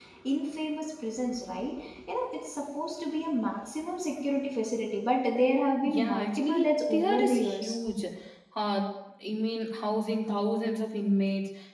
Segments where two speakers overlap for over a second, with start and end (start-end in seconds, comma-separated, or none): 5.8-7.8